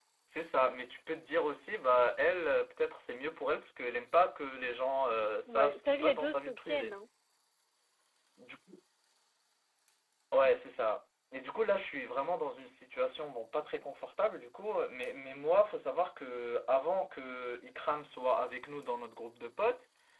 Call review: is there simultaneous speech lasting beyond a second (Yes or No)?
Yes